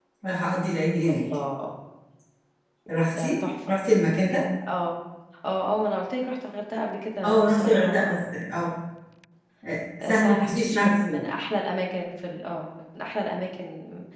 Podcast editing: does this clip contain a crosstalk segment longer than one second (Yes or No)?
Yes